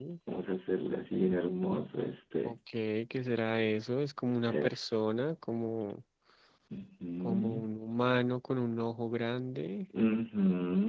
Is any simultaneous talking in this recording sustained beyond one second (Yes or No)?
No